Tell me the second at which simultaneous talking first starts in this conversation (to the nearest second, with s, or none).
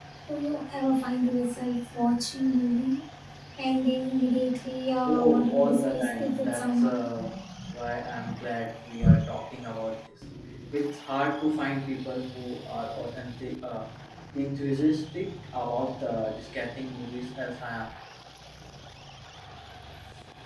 5 s